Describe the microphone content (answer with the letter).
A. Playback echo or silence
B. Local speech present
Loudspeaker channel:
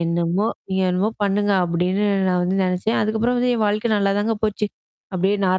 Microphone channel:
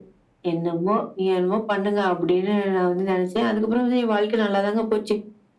A